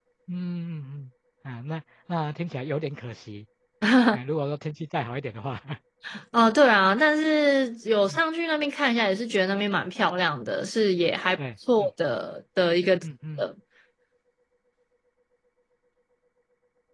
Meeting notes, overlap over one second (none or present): none